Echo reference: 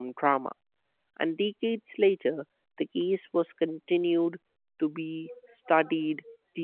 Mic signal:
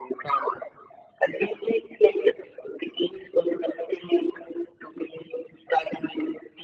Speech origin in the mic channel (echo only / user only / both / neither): echo only